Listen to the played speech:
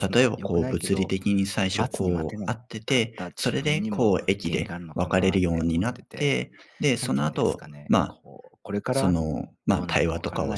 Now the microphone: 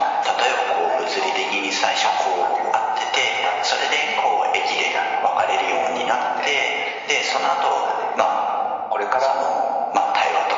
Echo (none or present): present